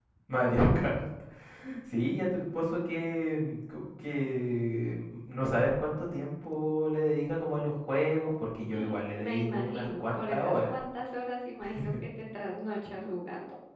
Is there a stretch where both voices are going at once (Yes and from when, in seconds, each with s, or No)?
Yes, from 8.7 s